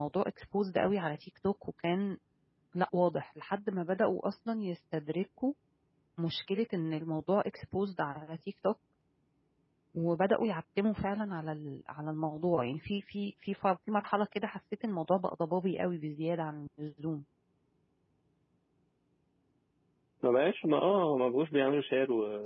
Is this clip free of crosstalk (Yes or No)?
Yes